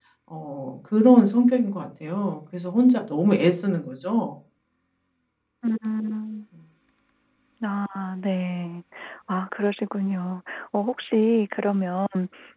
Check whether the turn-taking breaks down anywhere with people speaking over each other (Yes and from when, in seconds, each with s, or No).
No